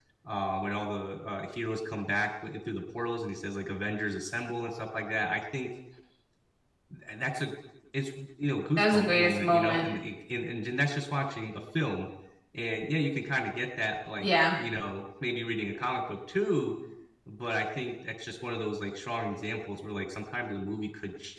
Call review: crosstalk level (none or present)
present